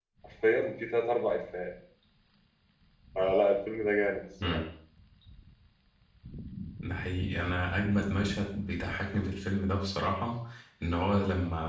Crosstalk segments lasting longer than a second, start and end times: none

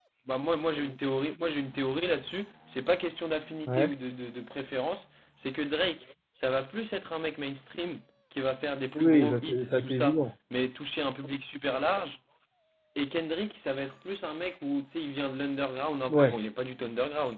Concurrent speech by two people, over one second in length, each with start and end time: 8.9-10.2

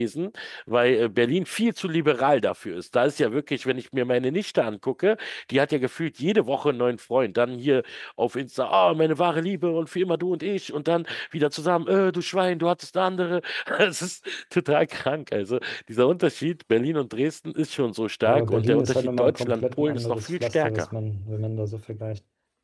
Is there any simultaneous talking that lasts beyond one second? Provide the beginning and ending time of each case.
18.2-20.9

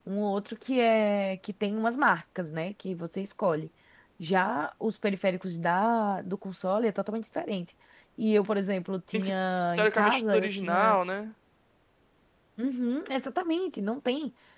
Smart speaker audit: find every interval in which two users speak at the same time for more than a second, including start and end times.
9.8-11.0

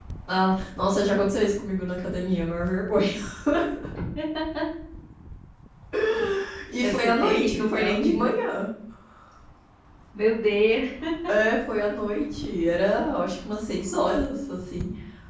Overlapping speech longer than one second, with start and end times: 6.8-8.3

